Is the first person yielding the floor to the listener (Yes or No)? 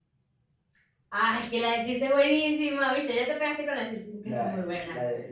Yes